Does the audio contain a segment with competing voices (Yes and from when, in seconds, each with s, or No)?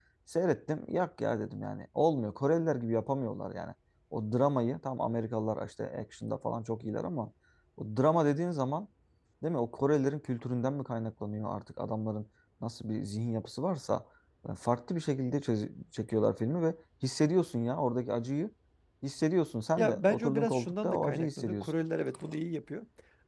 Yes, from 19.8 s